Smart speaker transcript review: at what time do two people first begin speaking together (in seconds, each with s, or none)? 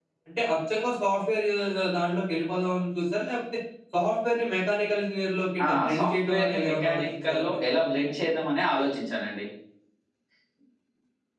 5.6 s